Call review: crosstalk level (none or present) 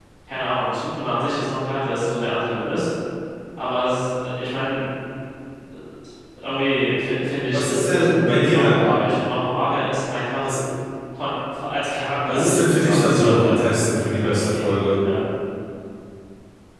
present